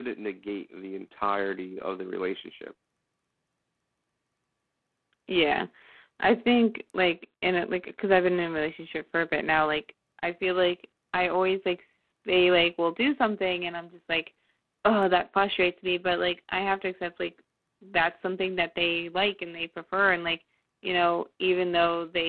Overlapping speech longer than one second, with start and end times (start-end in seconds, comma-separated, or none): none